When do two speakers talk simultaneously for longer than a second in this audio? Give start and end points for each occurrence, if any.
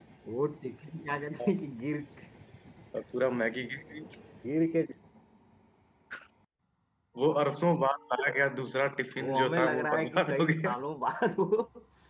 9.2-10.7

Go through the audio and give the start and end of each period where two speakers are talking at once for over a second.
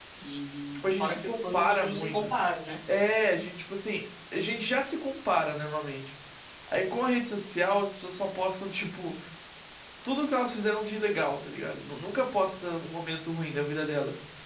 0.8-2.2

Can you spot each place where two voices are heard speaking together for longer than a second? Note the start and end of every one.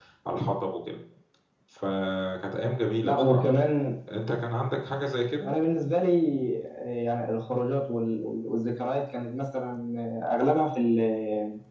none

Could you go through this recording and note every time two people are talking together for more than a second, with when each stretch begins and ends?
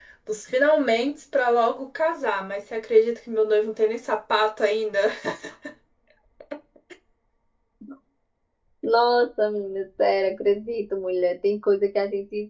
none

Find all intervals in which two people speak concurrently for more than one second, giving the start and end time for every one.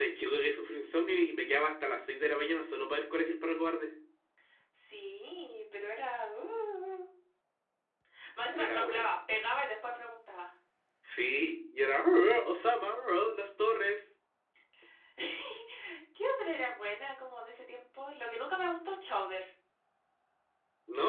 none

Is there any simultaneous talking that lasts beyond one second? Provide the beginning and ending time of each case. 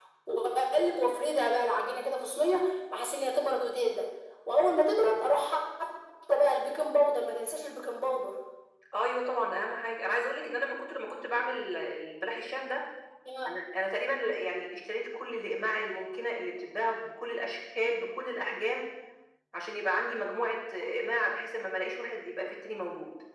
none

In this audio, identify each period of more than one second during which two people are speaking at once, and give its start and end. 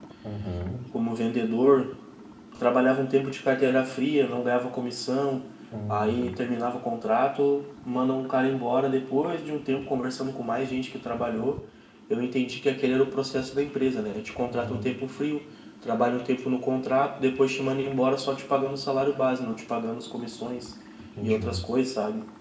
none

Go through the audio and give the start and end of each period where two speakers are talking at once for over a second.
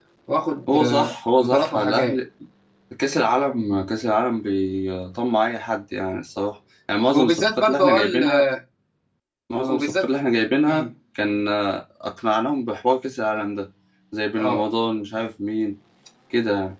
0.7-2.2, 7.1-8.4

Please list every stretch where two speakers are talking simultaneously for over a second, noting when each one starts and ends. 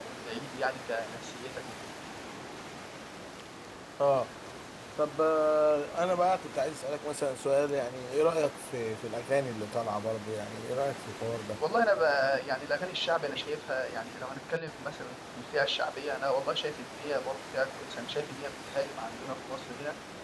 none

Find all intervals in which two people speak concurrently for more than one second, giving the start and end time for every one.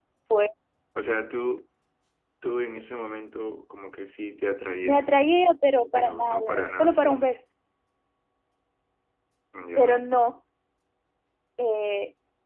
5.9-7.2

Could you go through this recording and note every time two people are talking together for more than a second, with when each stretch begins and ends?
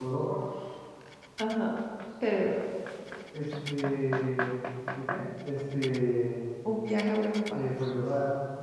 none

